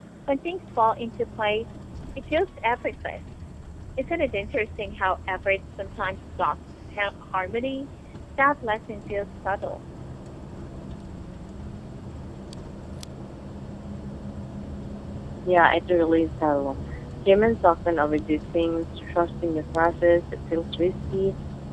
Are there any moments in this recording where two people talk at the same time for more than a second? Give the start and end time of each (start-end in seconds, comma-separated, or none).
none